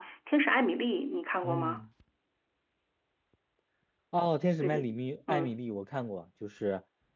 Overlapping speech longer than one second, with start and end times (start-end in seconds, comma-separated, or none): none